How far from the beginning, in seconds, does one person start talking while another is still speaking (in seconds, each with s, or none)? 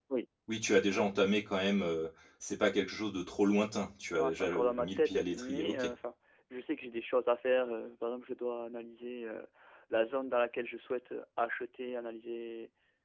4.2 s